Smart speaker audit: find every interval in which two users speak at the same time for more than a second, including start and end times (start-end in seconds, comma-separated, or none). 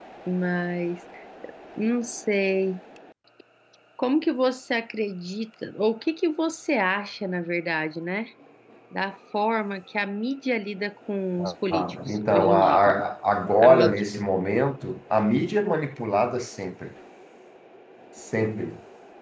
11.5-12.8